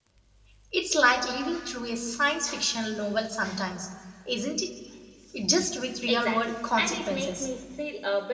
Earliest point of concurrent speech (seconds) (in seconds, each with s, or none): 6.1 s